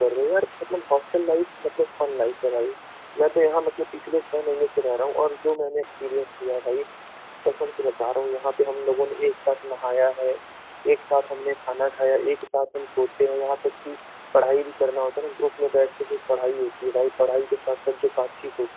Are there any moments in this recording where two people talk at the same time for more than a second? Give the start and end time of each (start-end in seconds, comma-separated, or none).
none